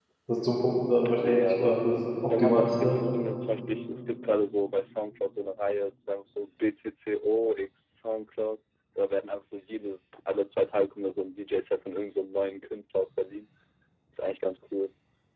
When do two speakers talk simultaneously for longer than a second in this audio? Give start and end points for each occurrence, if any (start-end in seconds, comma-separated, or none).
1.1-3.0